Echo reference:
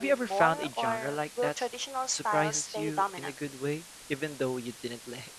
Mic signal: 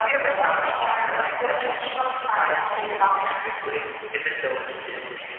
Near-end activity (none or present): none